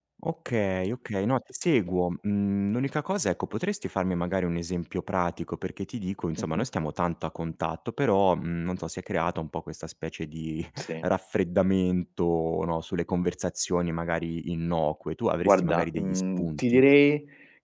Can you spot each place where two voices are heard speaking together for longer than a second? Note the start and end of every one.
15.4-16.8

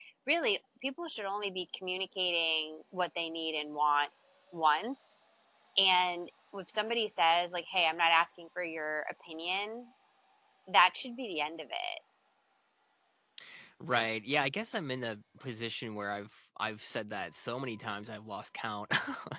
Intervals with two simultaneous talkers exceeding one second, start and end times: none

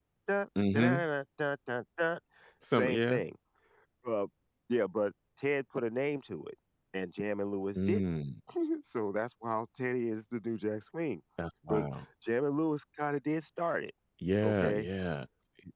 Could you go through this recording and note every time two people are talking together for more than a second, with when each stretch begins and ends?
none

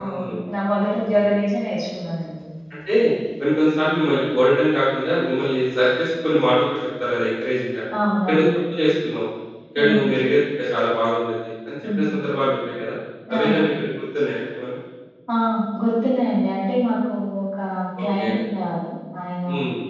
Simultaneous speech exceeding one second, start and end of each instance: none

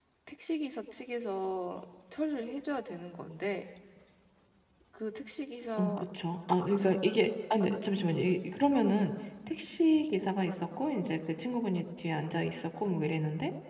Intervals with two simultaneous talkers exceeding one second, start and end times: none

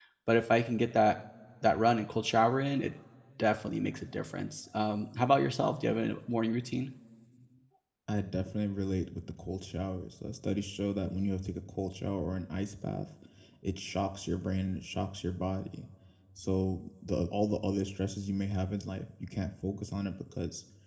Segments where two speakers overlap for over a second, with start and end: none

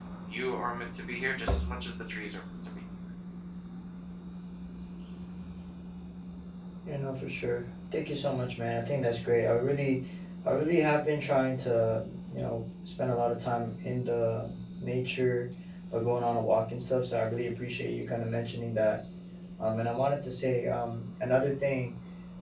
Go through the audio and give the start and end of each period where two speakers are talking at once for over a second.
none

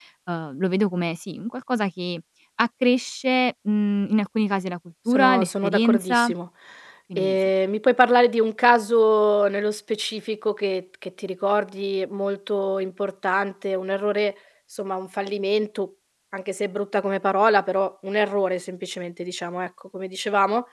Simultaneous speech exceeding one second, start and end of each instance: 5.1-6.3

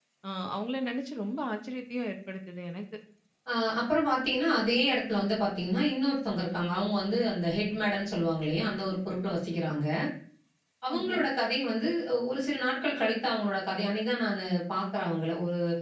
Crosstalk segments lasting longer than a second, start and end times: none

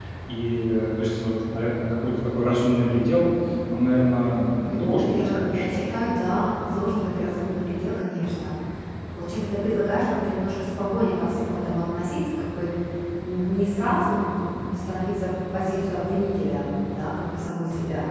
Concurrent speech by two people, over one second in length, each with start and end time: 4.6-5.9

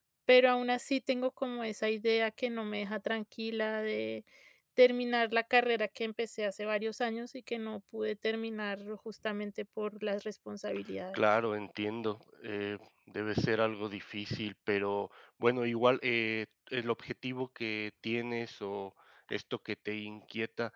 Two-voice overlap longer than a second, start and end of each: none

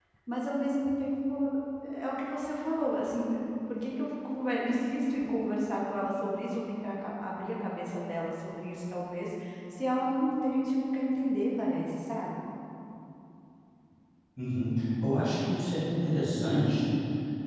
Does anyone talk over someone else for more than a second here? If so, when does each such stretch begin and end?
none

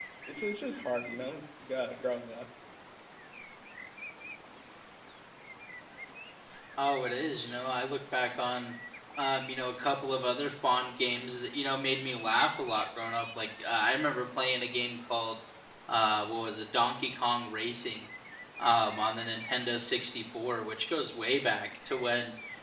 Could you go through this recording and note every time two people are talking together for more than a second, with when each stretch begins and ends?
none

